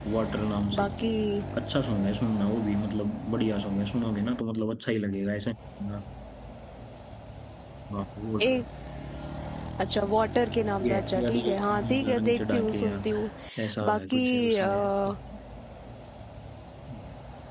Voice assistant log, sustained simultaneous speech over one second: present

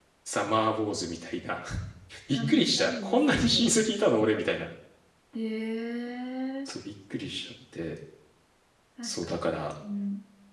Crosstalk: present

